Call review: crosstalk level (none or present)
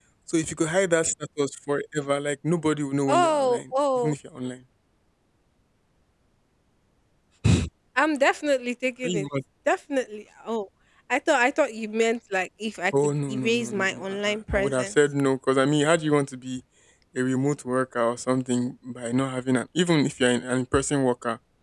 present